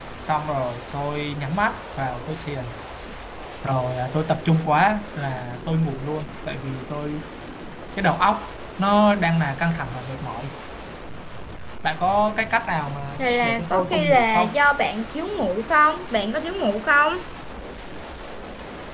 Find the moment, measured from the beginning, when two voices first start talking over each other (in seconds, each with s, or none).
13.2 s